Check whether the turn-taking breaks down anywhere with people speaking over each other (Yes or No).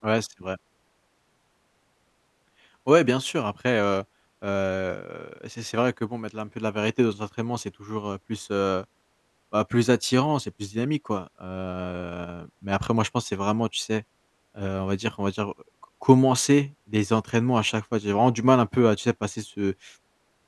No